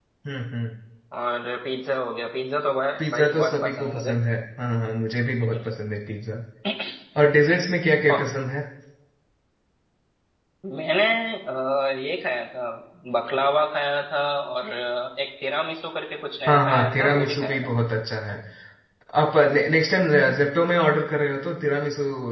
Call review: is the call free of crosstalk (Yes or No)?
No